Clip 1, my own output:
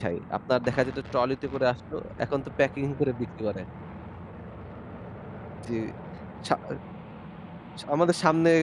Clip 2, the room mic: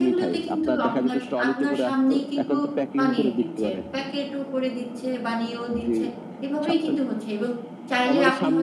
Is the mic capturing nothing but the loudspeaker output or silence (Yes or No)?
No